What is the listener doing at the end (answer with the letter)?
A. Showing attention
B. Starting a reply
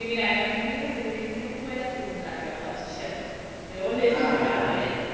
B